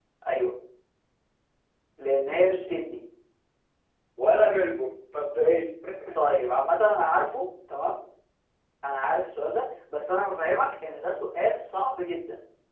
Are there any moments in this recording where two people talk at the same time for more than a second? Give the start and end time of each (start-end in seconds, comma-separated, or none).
none